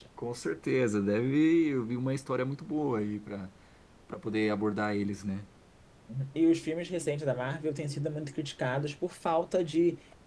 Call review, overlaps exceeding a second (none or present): none